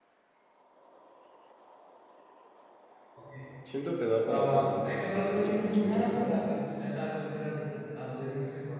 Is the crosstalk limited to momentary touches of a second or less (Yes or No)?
No